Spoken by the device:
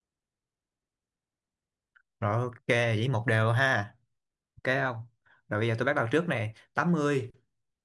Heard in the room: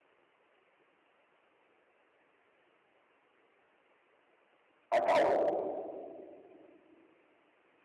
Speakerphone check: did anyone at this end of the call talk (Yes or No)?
Yes